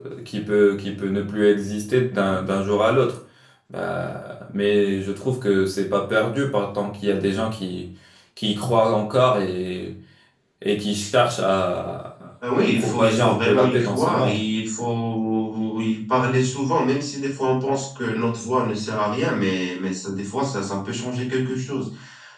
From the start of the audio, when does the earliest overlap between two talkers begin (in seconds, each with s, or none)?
12.6 s